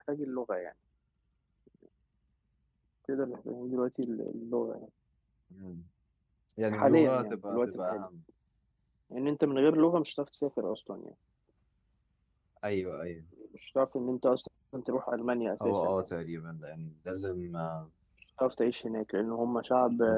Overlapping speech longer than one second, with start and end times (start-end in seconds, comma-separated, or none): 6.7-8.1